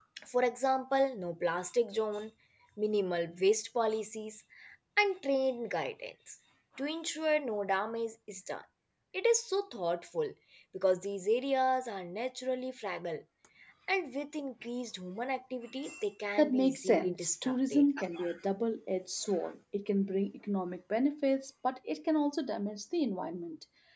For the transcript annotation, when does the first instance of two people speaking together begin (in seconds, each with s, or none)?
16.4 s